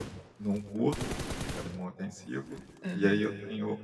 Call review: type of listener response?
listening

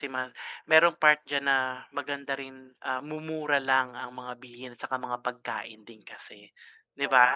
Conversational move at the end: taking over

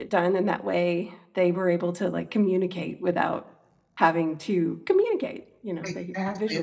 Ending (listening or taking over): taking over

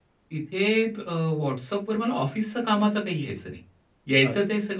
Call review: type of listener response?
listening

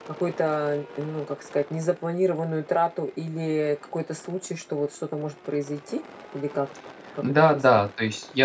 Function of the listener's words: taking over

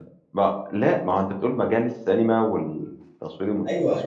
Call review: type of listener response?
taking over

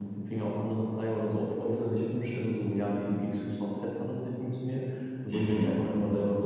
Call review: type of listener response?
listening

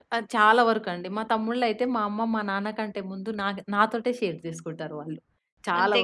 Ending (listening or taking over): listening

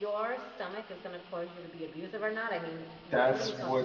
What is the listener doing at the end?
taking over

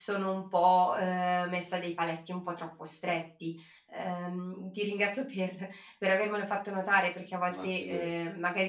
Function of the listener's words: listening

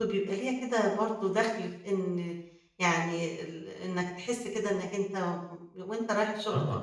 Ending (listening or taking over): taking over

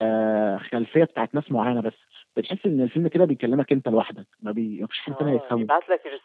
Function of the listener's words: taking over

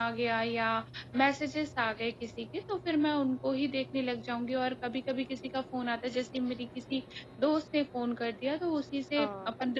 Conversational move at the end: listening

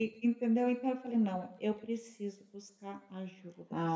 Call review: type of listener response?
taking over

